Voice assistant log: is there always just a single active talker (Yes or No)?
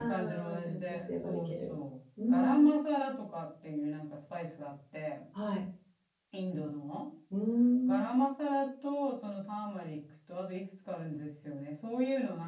No